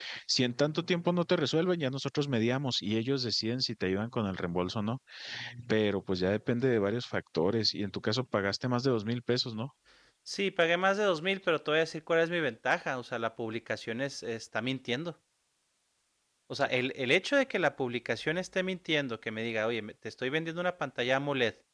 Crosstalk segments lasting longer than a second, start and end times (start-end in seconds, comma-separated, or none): none